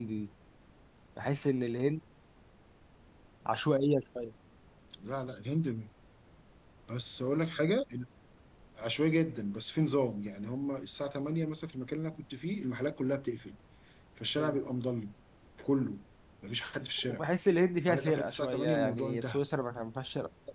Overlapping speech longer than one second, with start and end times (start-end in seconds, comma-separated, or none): 17.9-19.4